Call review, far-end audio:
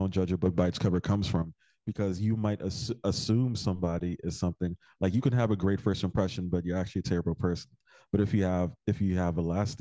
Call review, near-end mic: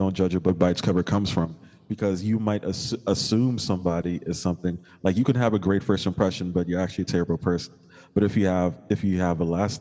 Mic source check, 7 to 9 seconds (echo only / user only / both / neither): echo only